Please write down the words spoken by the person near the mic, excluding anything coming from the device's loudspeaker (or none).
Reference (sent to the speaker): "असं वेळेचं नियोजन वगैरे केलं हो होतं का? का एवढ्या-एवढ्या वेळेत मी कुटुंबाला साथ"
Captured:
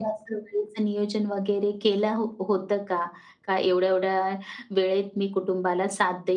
none